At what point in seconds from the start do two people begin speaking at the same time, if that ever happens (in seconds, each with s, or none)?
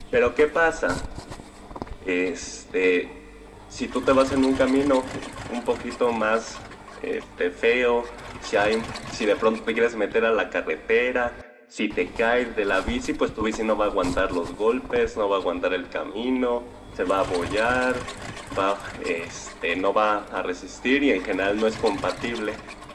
none